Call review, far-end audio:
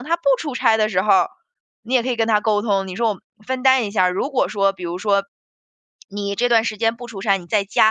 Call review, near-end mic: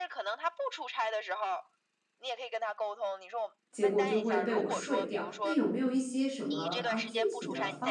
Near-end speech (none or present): present